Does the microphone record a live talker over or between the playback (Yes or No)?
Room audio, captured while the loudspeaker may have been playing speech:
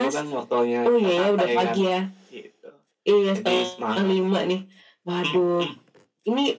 No